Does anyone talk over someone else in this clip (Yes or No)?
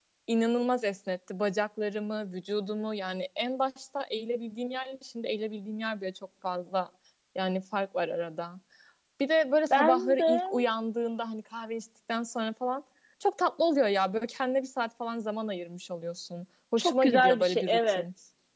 Yes